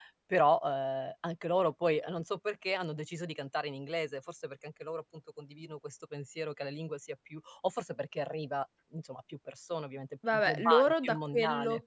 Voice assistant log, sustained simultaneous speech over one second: present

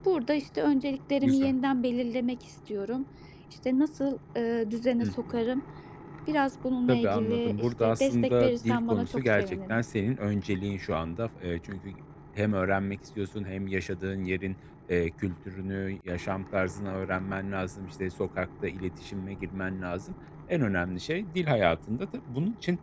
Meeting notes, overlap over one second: present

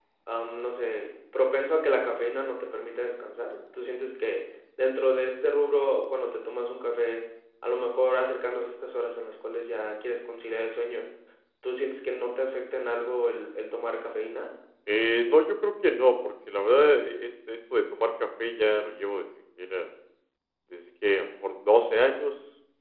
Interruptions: none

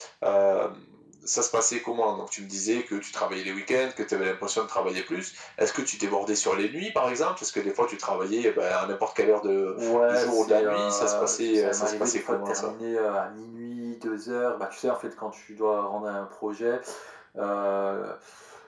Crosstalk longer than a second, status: present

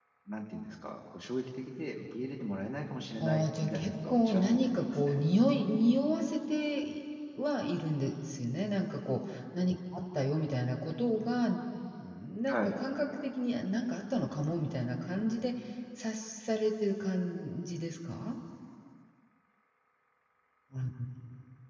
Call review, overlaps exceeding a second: present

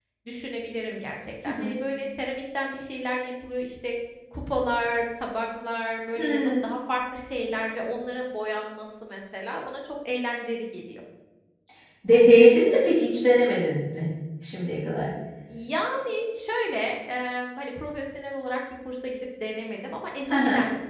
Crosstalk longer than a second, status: none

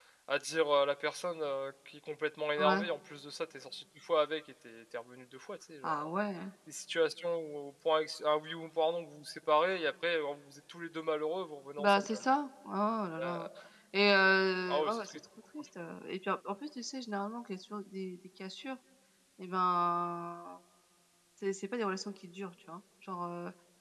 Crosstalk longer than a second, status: none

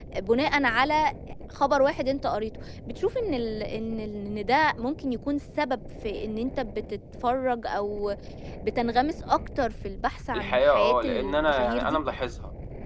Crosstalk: present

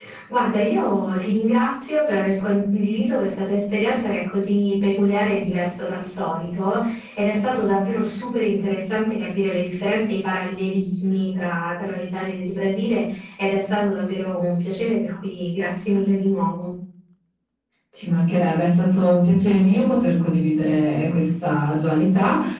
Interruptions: none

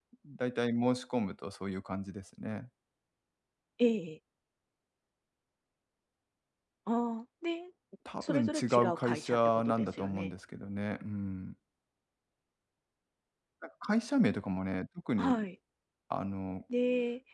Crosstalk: present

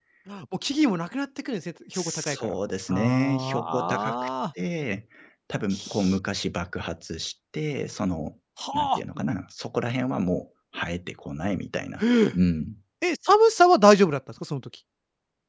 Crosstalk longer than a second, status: present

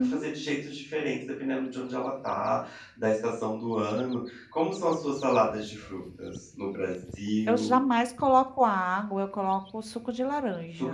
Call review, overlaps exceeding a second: none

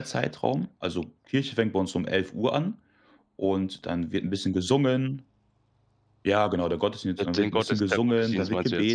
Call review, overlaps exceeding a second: present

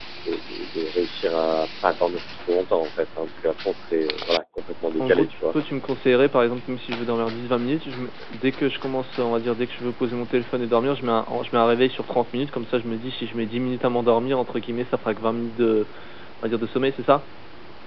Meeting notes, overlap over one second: none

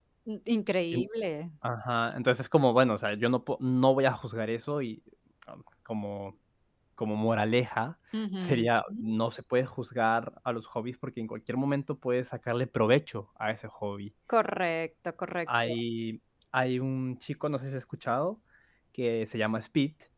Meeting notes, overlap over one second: none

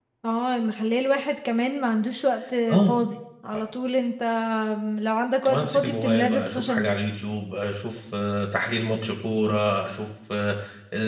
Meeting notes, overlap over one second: present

